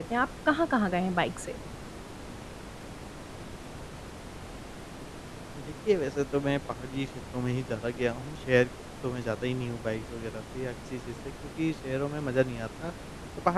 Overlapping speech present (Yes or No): No